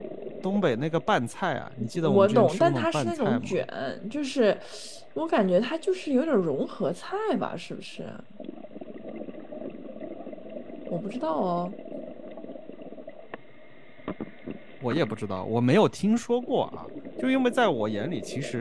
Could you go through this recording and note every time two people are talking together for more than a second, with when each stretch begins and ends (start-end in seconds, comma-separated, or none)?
2.0-3.6